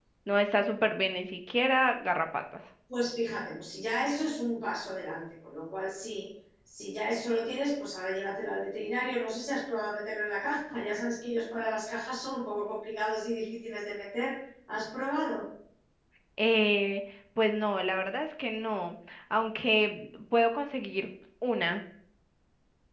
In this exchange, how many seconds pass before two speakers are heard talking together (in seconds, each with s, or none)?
none